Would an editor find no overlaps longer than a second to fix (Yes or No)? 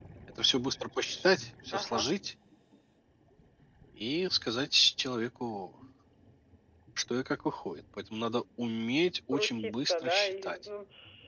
No